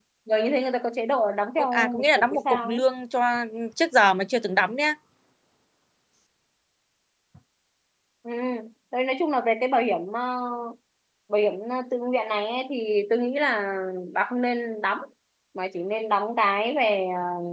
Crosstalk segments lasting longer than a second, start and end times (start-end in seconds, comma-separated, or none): 1.6-2.8